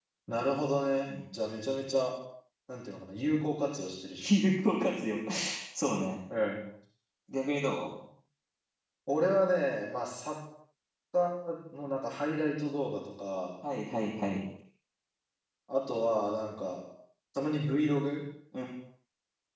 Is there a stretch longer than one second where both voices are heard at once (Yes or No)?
No